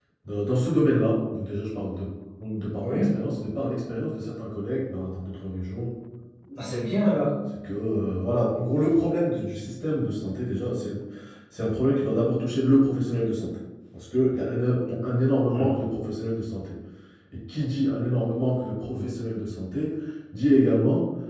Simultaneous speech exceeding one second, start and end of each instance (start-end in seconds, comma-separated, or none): none